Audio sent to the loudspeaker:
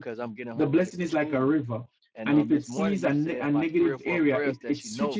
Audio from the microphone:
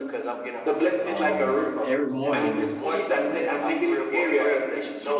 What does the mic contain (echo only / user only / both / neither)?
both